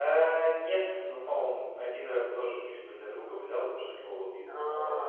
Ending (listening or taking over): listening